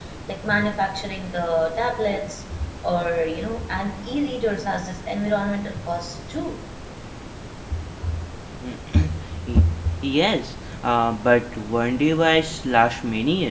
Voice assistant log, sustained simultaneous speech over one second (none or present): none